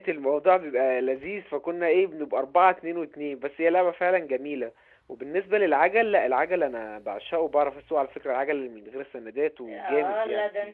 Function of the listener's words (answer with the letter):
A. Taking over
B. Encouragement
A